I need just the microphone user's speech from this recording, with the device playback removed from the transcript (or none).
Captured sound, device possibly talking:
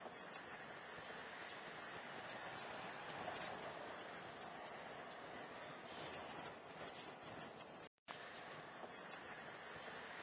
none